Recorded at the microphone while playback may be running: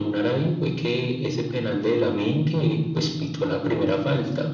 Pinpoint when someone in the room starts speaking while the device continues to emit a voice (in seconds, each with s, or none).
none